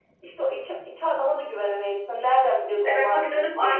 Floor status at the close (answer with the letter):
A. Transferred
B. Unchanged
A